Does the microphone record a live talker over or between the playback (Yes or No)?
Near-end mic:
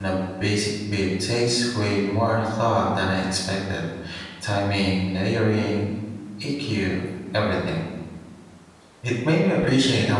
Yes